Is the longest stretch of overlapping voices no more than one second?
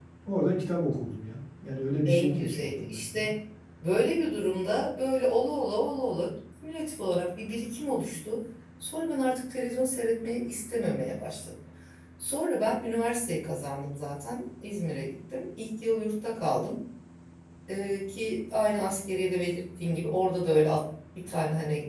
No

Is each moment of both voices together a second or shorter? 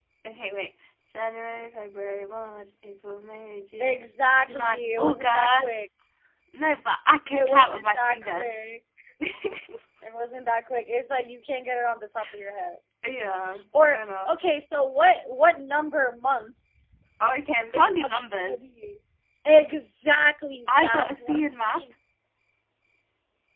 No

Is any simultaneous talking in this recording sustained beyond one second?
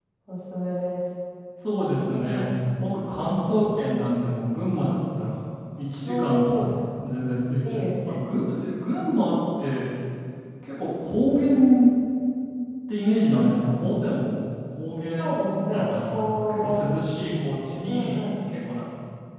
Yes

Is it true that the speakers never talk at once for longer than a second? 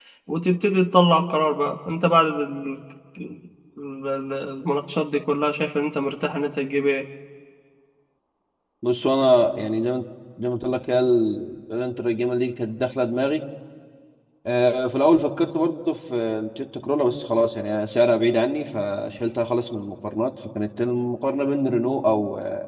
Yes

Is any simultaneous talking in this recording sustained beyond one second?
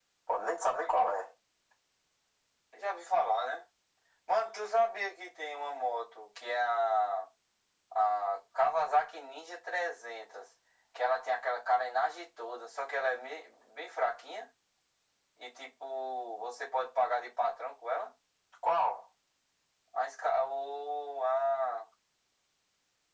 No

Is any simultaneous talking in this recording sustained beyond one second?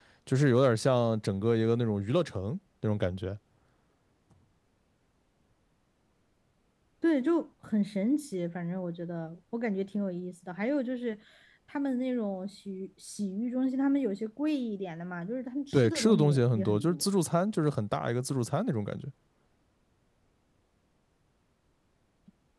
Yes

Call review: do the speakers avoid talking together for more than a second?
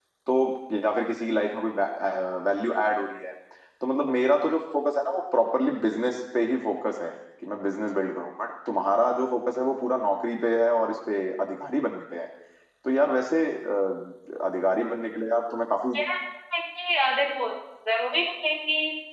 Yes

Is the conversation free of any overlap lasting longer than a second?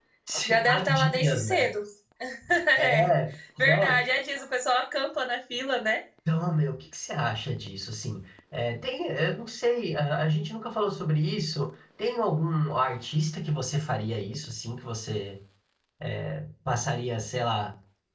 No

